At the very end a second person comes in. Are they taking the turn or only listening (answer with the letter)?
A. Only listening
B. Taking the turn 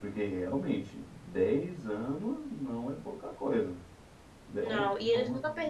B